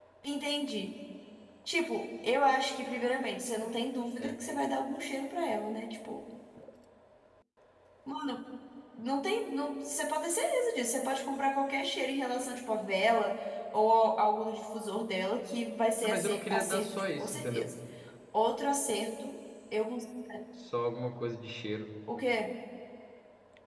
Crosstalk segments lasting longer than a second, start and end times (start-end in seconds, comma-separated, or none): 16.0-17.6